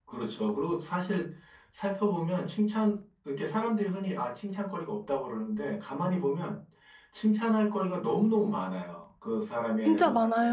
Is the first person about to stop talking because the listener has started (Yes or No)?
No